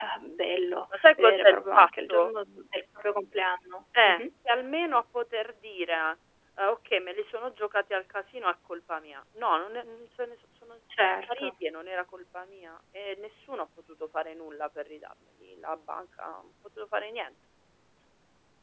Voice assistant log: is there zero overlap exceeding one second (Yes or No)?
No